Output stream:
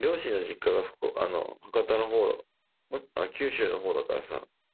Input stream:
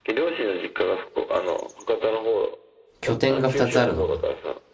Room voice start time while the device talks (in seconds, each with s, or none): 3.0 s